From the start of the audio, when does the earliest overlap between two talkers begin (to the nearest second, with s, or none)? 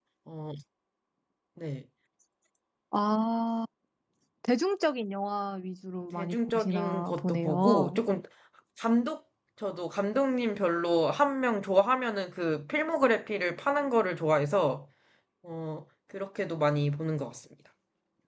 6 s